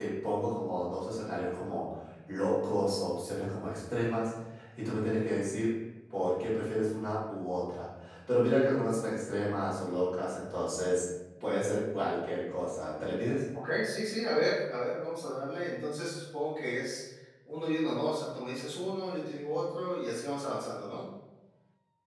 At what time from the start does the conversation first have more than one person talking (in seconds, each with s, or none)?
none